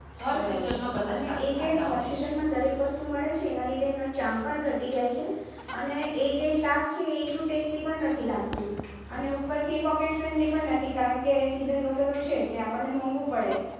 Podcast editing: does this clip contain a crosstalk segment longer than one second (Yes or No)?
Yes